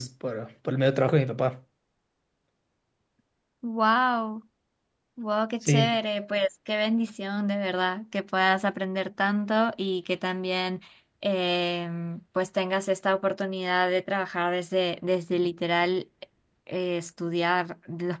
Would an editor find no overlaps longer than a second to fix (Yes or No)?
Yes